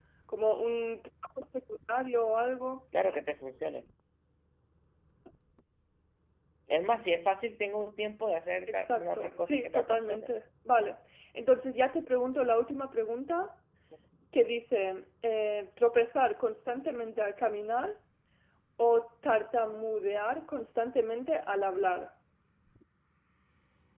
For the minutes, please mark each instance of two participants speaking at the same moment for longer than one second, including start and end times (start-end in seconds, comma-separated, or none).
8.7-10.3